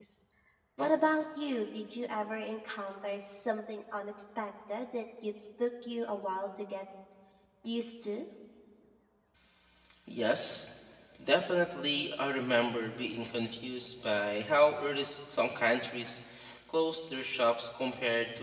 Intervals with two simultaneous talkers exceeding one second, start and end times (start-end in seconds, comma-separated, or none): none